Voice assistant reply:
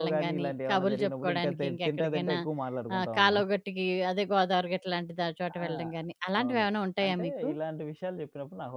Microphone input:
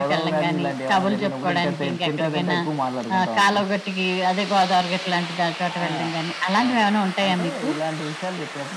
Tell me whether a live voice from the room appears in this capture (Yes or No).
No